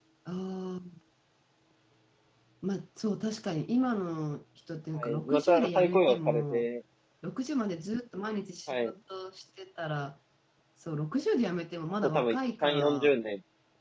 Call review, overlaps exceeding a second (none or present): present